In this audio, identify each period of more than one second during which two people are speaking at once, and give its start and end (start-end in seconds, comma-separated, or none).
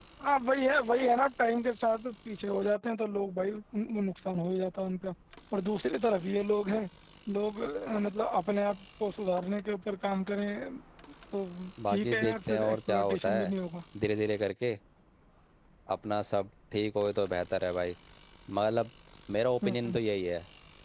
11.9-13.5